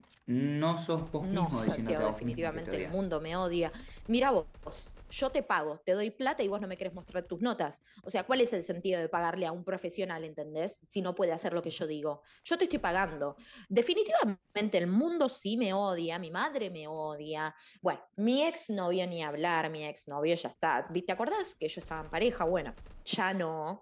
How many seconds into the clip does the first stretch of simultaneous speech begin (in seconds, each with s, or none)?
1.2 s